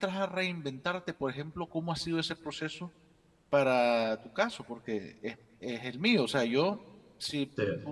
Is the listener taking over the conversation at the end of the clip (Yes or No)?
No